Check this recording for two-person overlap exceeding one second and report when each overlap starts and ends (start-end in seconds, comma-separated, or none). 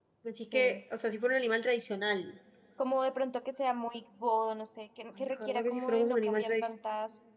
5.2-6.7